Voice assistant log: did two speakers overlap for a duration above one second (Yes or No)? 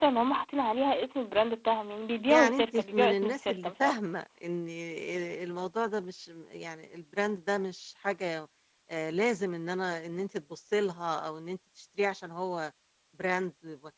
Yes